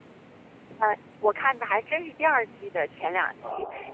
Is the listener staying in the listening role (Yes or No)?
Yes